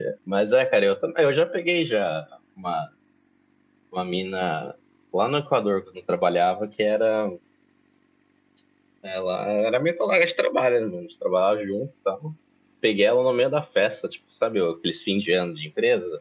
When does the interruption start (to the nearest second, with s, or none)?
none